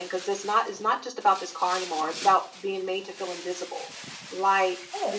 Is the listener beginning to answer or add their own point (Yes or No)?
No